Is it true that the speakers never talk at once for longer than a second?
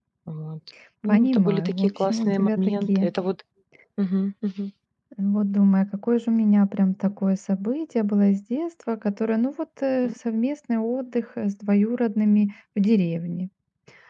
No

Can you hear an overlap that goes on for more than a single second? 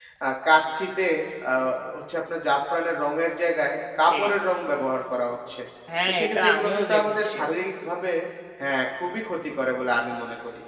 Yes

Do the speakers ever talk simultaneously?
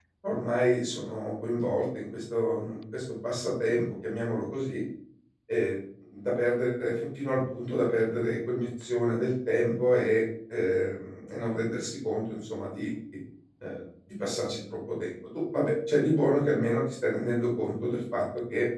No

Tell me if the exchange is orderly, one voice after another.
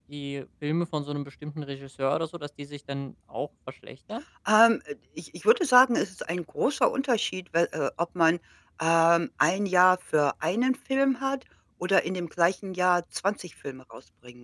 Yes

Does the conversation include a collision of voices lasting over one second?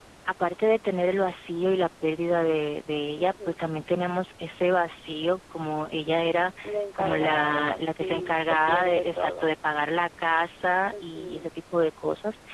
Yes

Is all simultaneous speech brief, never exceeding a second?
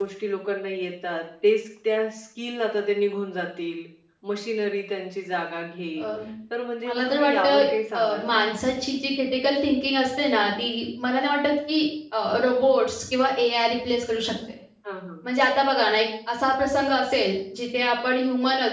No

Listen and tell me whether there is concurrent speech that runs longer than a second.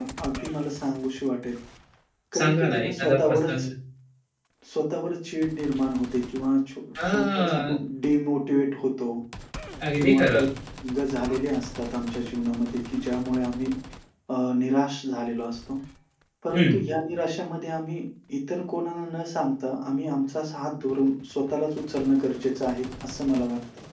Yes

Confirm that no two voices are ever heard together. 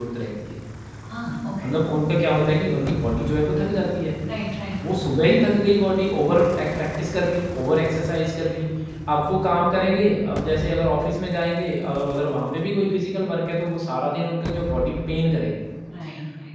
Yes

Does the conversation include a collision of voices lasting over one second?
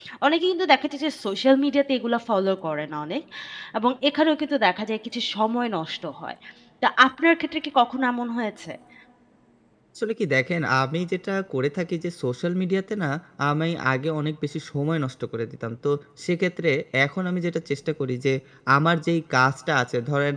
No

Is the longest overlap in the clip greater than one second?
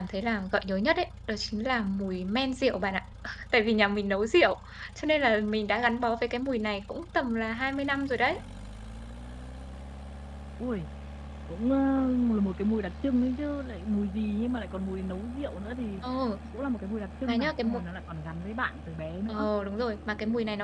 No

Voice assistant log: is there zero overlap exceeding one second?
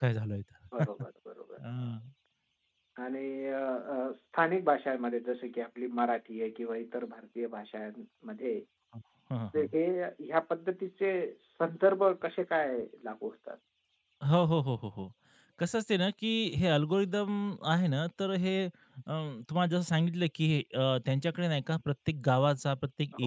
Yes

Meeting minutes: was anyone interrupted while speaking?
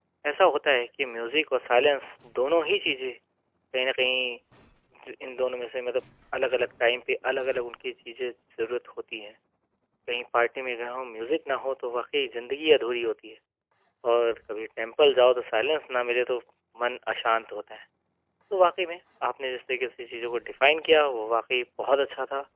No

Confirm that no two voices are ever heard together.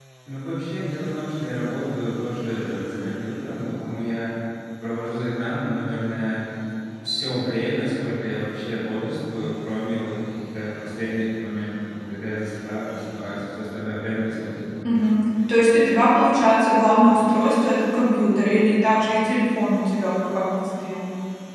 Yes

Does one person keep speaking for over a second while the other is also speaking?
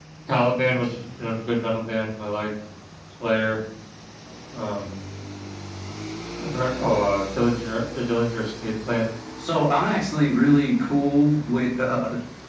No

